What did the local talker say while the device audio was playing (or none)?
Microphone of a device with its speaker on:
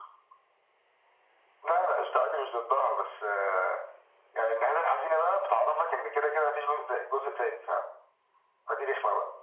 none